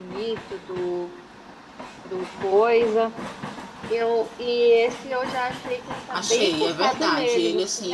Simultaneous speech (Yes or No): Yes